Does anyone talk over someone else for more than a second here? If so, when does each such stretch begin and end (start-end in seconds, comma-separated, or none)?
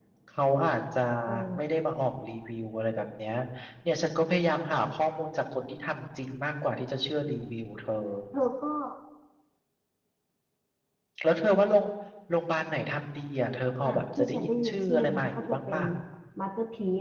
13.8-15.8